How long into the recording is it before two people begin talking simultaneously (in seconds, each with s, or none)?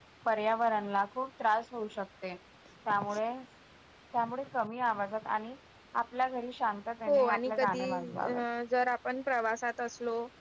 7.1 s